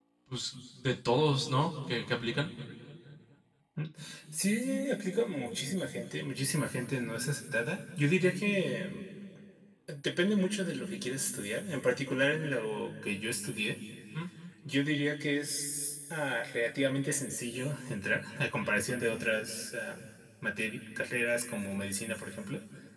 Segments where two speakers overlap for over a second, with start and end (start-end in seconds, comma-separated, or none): none